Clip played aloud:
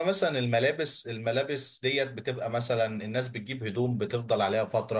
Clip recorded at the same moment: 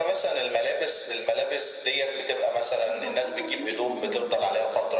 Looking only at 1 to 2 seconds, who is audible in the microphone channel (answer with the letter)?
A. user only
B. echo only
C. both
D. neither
B